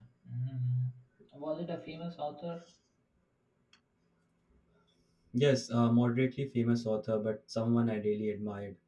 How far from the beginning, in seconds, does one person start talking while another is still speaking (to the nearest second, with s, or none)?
none